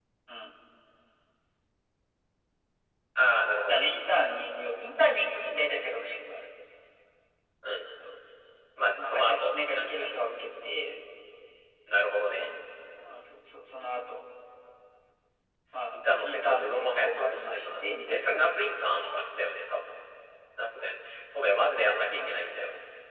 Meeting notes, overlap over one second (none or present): present